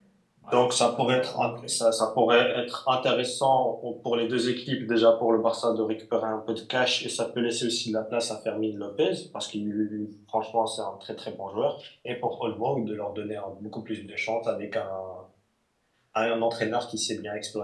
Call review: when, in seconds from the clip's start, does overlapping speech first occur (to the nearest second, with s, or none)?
1 s